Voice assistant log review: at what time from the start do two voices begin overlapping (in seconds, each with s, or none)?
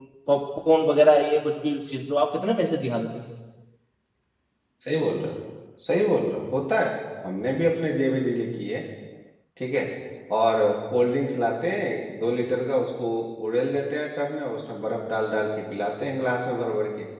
none